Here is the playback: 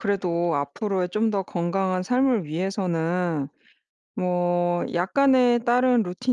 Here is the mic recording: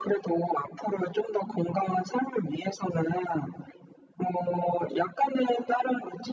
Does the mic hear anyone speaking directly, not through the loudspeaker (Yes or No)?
No